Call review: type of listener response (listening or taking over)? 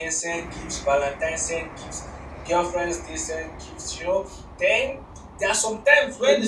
listening